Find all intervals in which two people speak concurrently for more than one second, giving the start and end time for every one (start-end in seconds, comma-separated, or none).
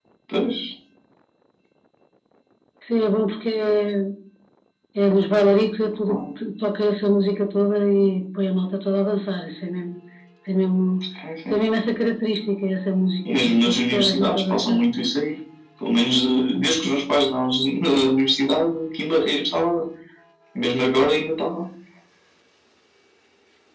13.3-14.8